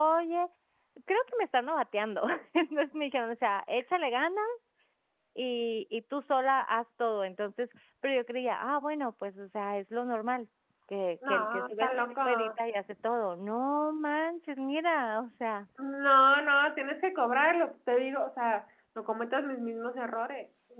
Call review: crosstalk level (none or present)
present